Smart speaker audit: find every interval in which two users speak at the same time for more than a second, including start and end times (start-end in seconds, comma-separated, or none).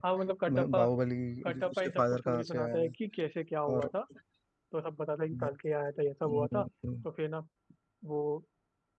1.4-2.9